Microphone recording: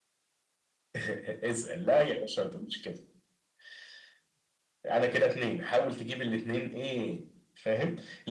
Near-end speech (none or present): none